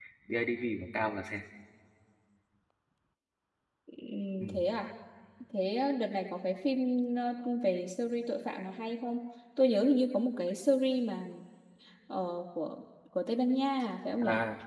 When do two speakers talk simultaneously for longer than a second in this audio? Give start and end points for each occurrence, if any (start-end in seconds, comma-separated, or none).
none